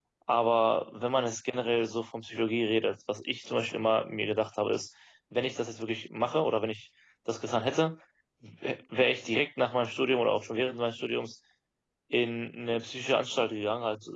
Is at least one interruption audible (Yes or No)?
No